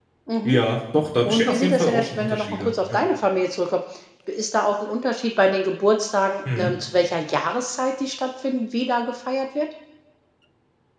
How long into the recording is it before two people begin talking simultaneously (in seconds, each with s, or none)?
1.2 s